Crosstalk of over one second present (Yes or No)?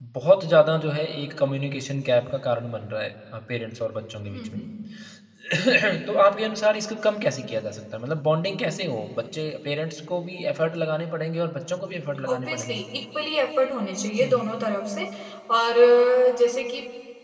No